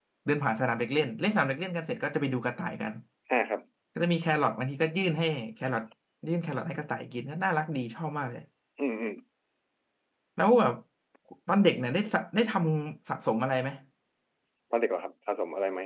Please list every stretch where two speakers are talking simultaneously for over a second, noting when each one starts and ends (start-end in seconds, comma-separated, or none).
none